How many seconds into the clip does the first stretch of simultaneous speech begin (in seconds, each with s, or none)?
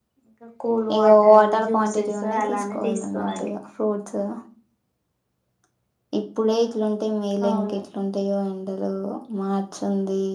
1.0 s